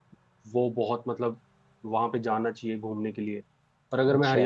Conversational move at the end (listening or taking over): listening